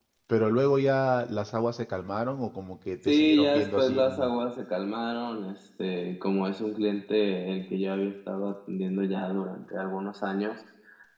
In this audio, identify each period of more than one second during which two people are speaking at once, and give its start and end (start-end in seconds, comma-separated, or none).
3.0-4.3